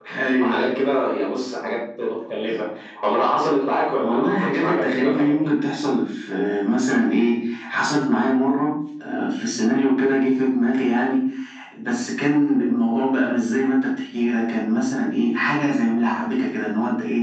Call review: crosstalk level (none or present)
present